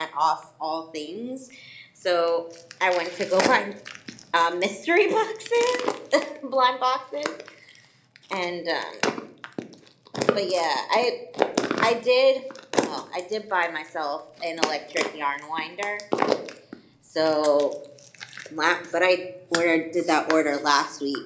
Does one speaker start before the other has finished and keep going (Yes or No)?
No